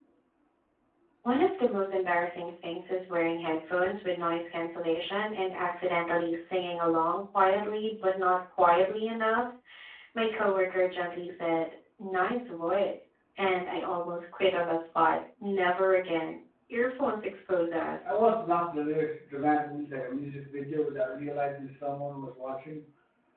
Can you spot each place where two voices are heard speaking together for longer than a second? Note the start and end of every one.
none

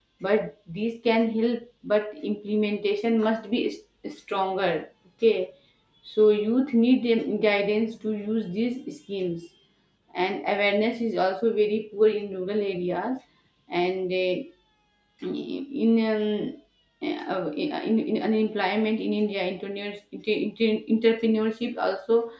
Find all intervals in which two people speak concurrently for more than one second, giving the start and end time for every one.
none

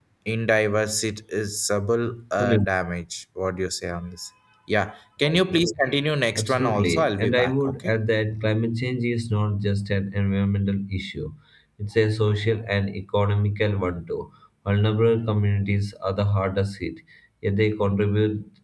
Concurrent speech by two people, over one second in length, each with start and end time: 6.4-7.9

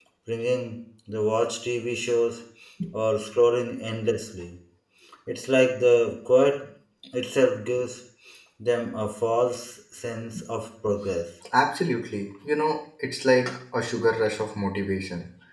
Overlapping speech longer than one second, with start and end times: none

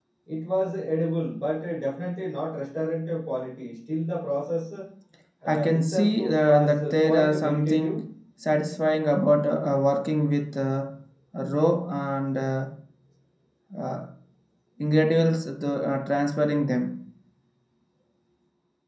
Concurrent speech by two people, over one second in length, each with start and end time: 5.5-8.0

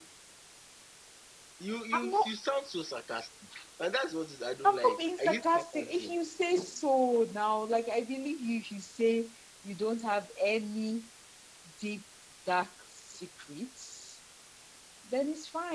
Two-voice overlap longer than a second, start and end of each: 4.6-6.1

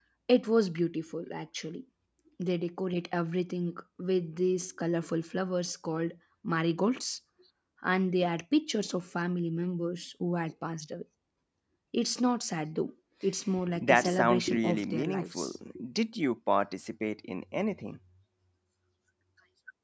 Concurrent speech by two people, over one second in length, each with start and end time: 13.8-15.5

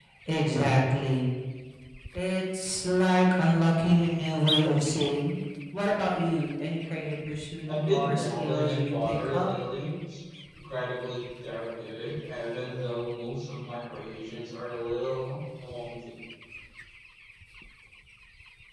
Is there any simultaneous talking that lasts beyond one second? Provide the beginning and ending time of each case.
7.7-9.5

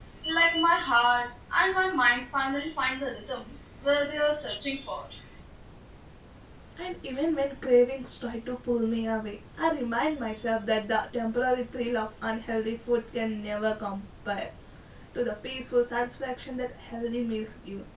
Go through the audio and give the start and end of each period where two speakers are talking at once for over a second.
none

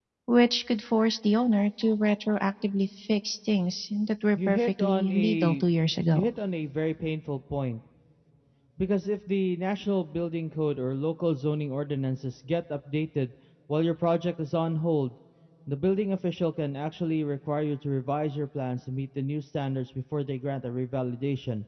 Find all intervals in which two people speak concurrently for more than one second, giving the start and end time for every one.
4.4-5.7

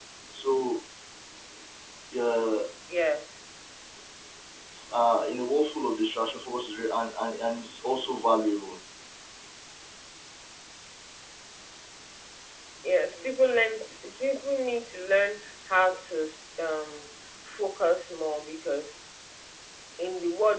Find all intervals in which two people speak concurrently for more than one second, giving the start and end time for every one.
none

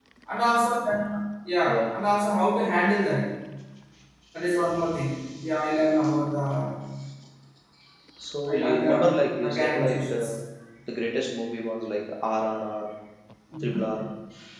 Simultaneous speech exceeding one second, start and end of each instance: 8.5-10.3

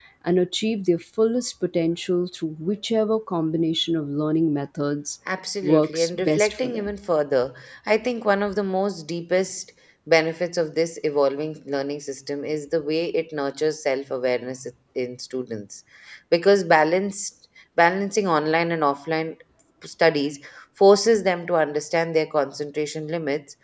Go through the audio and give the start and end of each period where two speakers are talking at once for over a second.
5.6-6.9

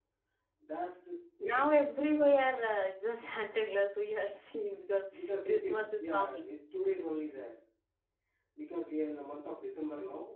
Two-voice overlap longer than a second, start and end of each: 5.1-6.5

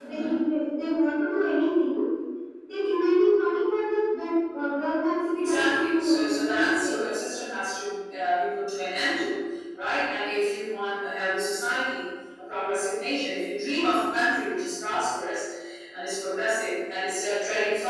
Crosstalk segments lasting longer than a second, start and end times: 5.4-6.9

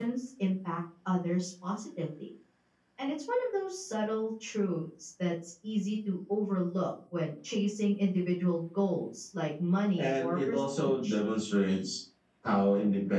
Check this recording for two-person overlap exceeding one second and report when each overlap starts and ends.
10.0-11.2

